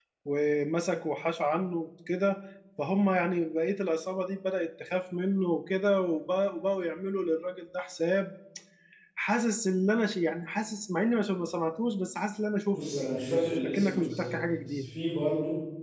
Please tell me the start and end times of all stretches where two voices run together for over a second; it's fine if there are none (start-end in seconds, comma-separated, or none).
12.7-14.9